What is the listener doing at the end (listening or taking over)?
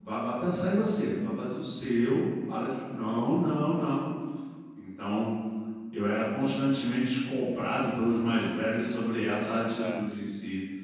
listening